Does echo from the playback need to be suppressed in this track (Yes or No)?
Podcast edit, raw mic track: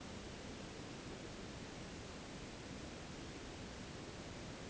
No